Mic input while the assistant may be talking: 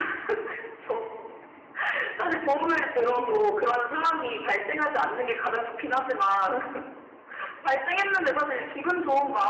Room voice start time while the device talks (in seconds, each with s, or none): 2.9 s